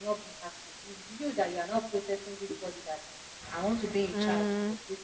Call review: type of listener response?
listening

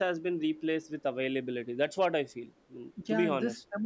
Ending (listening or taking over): taking over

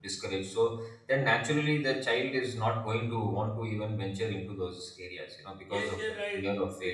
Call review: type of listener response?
taking over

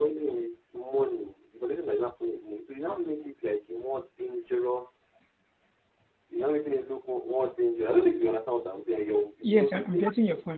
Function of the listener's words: taking over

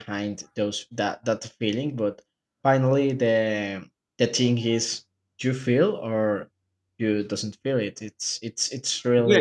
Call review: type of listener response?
taking over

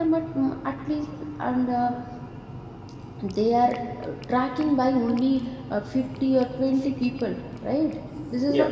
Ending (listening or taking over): listening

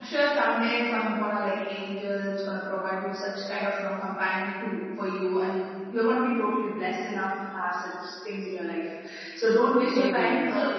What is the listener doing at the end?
listening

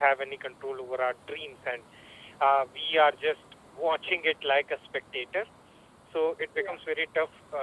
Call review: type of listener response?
listening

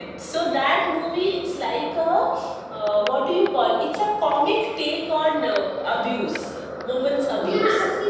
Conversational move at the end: taking over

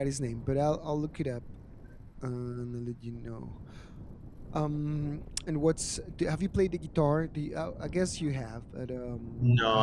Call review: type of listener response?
taking over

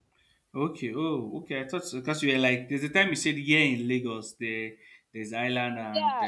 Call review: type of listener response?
taking over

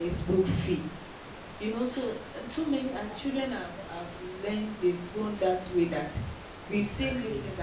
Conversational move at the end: listening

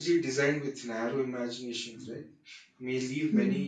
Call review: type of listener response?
listening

